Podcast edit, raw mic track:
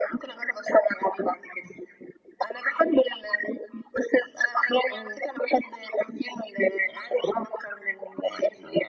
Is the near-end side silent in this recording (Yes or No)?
No